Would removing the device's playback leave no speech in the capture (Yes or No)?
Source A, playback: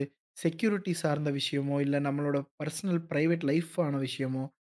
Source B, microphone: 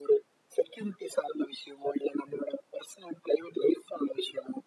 Yes